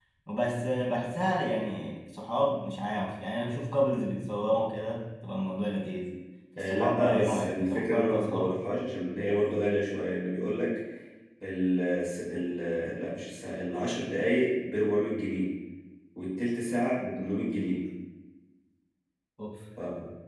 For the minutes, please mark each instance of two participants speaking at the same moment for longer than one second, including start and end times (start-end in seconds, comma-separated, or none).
6.6-8.6